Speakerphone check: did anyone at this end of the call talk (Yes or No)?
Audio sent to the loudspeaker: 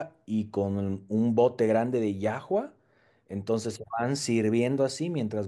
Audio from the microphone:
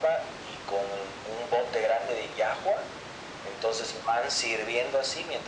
No